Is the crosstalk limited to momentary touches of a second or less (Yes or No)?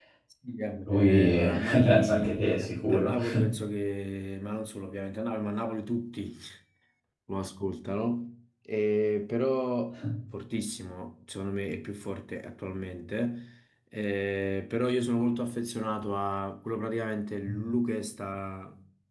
No